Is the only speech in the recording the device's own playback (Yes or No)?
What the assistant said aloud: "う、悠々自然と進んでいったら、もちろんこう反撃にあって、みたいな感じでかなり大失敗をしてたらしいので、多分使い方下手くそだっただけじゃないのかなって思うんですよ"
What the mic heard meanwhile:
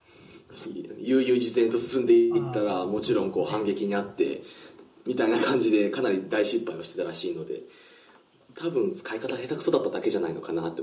No